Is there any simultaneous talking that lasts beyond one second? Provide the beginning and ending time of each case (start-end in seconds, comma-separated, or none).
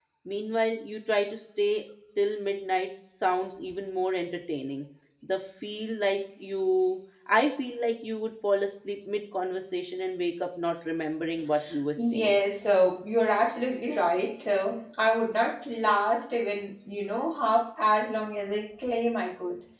none